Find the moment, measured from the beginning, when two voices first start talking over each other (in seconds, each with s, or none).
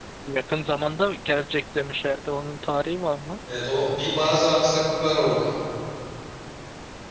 none